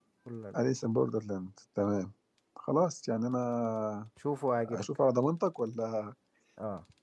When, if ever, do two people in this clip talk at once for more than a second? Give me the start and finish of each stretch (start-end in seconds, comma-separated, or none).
none